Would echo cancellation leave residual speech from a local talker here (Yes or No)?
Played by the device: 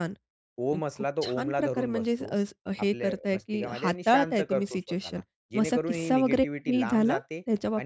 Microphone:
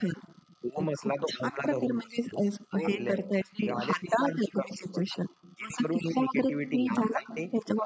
Yes